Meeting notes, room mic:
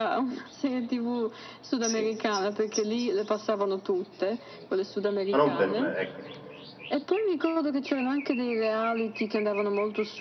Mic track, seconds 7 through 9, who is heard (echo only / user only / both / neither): echo only